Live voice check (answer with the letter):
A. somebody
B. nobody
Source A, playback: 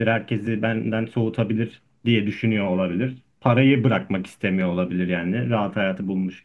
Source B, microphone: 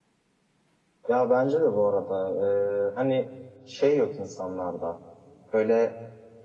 A